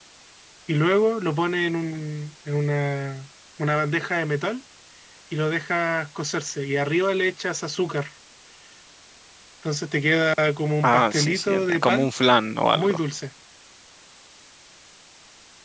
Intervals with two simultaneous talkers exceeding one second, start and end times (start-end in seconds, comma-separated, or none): 10.8-12.1